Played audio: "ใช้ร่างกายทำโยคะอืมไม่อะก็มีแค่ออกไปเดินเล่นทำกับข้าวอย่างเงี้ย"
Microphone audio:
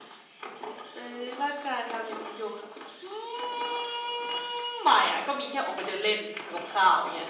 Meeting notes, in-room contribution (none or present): none